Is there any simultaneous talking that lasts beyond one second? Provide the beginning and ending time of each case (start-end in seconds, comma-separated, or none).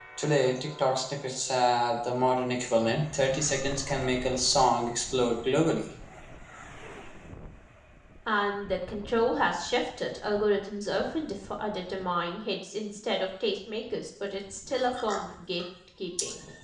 none